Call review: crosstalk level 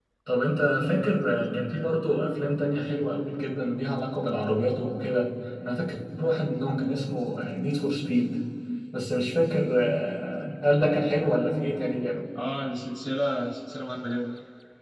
none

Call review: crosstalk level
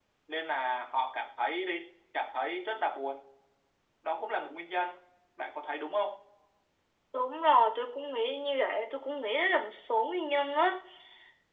none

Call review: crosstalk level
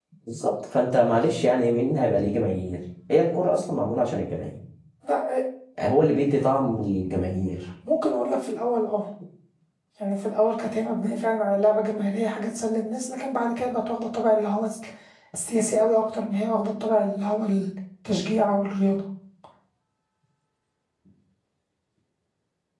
none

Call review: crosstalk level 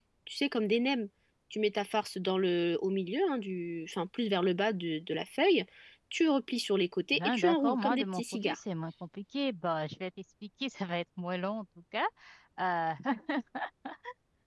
present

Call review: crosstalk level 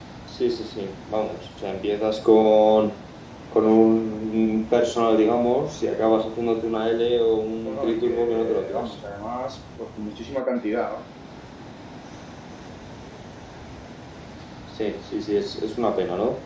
present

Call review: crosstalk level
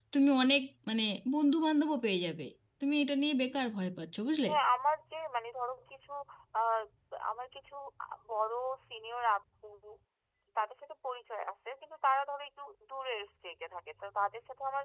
none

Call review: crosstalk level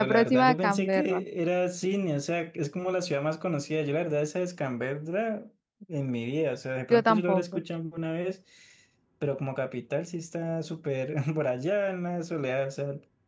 present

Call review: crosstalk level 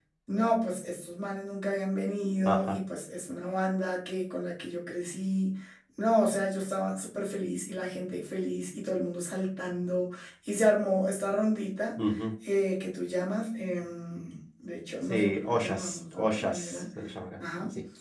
present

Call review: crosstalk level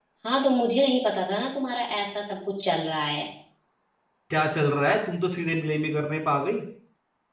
none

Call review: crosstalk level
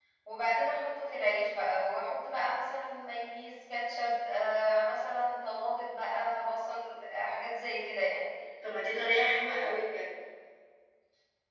none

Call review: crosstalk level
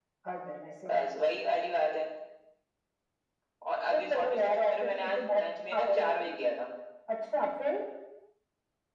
present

